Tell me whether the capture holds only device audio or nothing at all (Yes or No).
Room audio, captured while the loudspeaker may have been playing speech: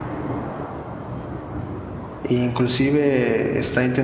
No